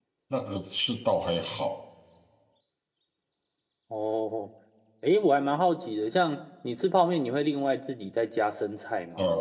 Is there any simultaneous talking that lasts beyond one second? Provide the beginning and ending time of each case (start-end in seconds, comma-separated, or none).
none